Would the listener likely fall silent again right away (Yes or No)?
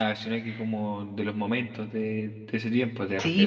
No